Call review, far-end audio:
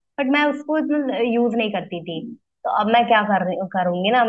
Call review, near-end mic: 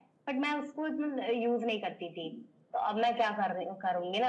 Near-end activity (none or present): none